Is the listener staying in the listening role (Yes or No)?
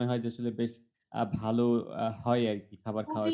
No